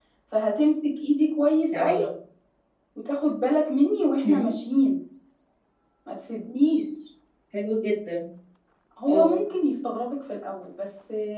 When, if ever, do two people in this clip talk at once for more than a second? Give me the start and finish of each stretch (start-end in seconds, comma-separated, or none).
none